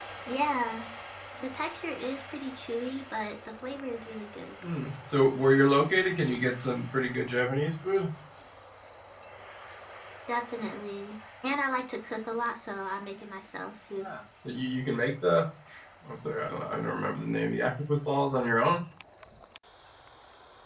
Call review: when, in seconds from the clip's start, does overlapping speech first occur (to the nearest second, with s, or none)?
none